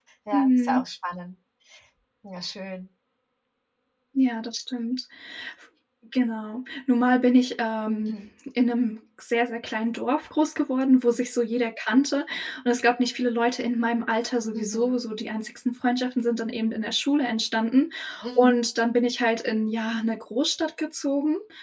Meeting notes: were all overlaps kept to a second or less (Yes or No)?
Yes